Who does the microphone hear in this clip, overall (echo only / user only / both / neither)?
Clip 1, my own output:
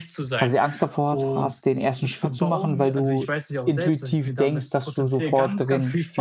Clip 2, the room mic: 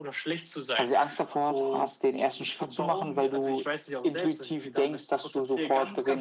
echo only